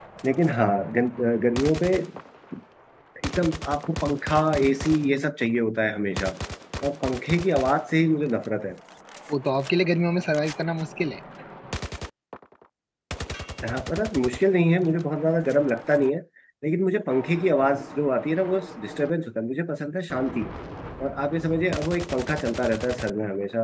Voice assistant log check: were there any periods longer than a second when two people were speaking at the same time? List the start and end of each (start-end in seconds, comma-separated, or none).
none